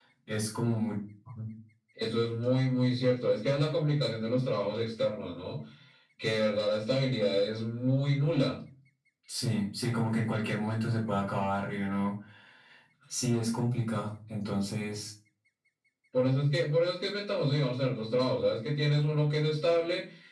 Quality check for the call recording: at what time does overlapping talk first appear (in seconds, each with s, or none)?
none